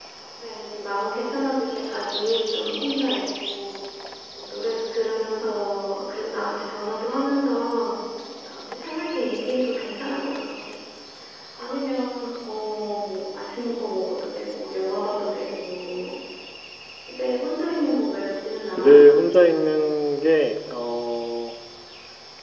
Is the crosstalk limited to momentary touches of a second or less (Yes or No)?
Yes